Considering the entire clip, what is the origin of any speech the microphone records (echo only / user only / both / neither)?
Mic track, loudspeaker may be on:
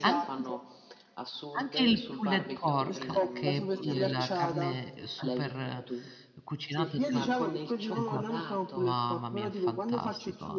both